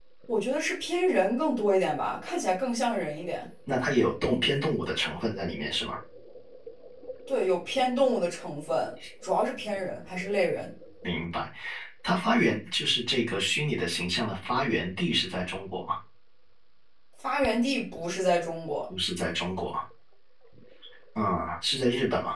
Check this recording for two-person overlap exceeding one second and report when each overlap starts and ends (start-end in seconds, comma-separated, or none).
none